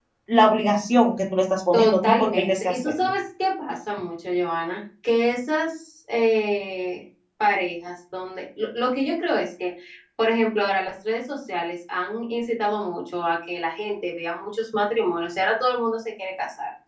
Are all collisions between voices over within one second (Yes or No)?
No